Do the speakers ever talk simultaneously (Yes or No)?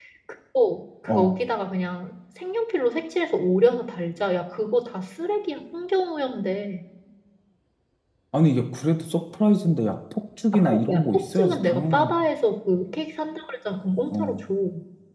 Yes